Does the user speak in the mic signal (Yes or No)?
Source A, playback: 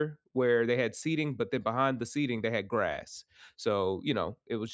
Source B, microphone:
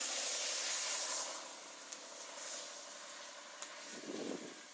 No